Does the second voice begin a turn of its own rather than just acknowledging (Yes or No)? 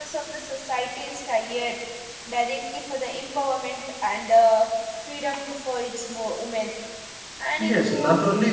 Yes